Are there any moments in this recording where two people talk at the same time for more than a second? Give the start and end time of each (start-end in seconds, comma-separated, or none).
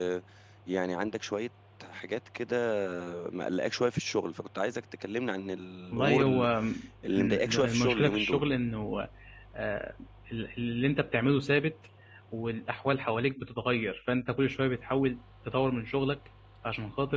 7.1-8.4